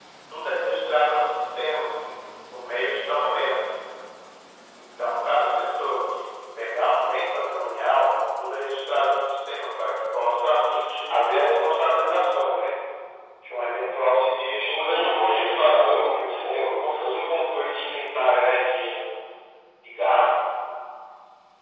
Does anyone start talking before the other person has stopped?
Yes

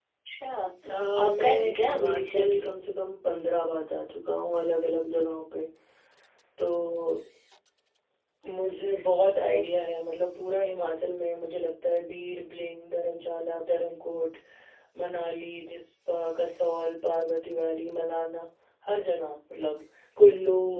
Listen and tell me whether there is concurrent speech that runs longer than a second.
Yes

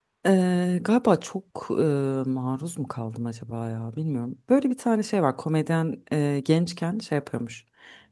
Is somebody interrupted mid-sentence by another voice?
No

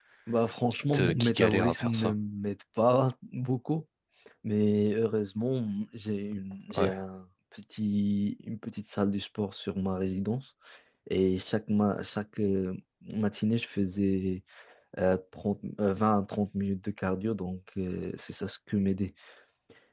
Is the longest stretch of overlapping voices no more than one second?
No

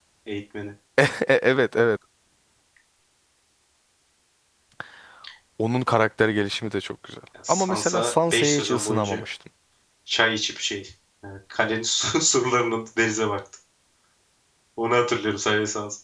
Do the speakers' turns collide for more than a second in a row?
Yes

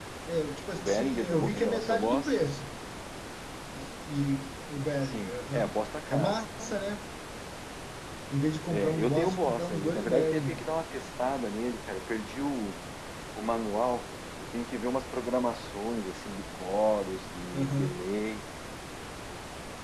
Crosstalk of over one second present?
Yes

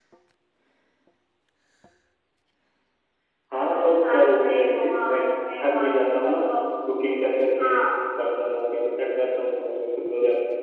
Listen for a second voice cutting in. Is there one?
Yes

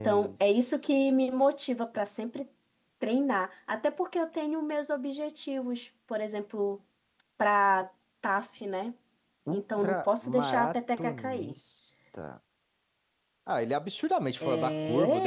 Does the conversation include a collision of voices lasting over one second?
Yes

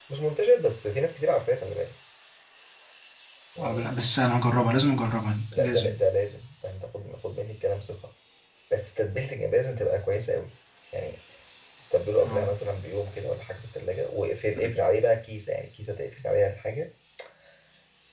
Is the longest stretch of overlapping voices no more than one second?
Yes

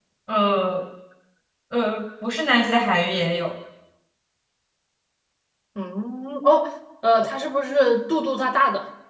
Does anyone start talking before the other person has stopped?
No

